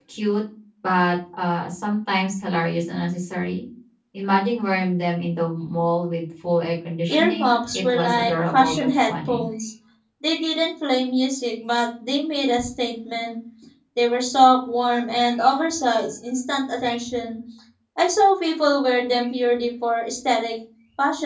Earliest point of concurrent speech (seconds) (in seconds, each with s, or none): 7.1 s